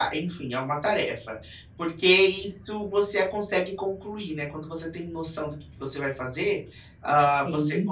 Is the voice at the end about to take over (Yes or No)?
No